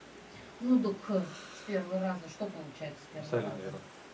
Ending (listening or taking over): taking over